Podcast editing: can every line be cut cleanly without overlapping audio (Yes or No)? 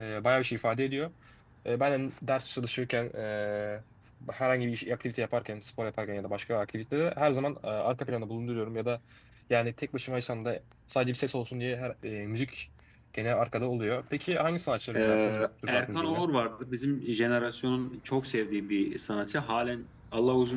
No